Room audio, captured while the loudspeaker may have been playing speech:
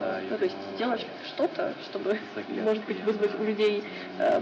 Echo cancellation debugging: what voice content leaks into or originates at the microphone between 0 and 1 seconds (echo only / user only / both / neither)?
echo only